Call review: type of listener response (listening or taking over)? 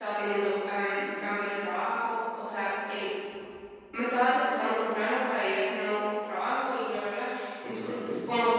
listening